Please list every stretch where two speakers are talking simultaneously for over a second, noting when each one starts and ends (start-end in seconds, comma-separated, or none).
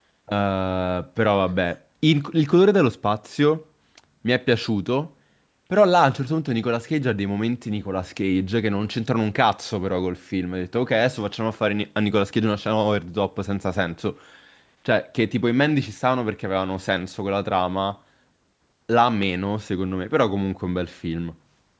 none